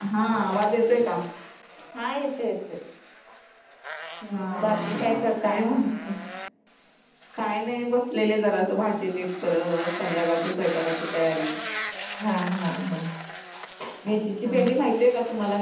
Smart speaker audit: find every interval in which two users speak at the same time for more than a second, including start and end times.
4.3-5.8

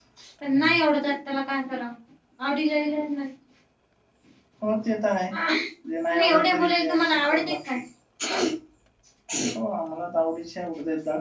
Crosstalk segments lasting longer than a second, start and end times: 6.1-7.5

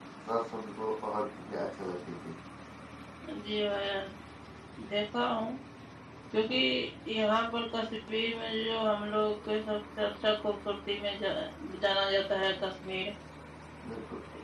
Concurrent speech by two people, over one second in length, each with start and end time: none

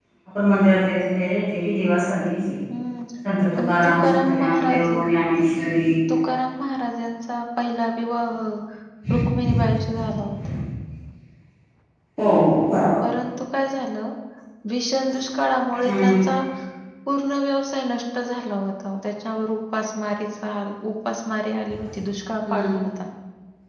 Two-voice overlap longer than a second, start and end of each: 3.6-4.9

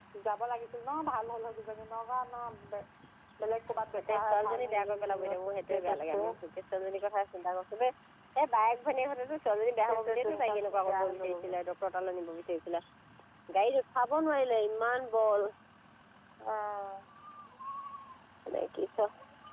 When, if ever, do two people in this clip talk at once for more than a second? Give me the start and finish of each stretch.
4.1-6.3, 9.9-11.6

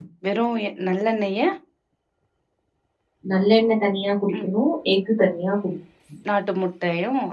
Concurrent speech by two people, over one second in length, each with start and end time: none

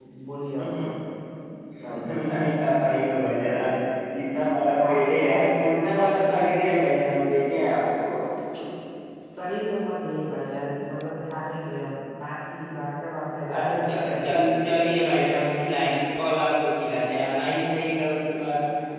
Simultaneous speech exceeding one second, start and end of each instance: 4.7-7.1

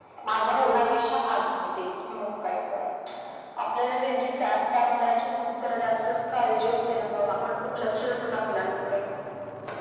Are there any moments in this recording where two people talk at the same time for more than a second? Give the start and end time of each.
none

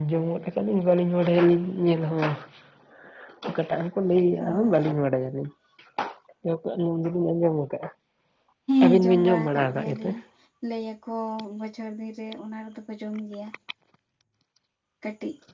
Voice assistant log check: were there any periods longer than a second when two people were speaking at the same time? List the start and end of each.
8.8-10.1

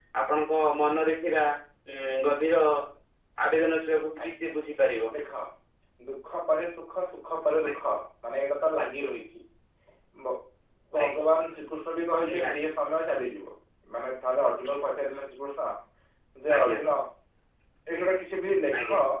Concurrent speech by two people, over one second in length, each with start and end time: none

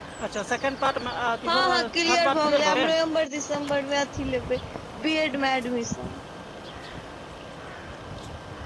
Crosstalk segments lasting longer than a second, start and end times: 1.5-2.9

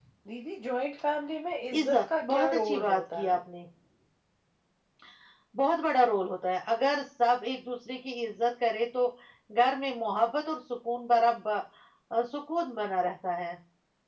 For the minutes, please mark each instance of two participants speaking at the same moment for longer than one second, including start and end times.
1.8-3.3

